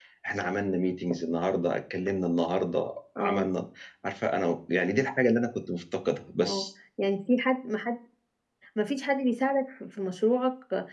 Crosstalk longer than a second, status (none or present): none